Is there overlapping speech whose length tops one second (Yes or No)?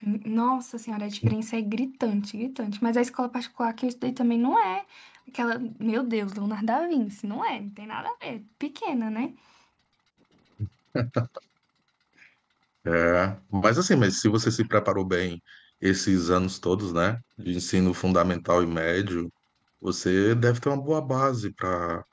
No